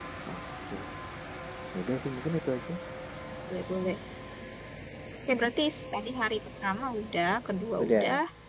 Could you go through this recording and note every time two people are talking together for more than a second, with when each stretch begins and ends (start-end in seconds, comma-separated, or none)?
none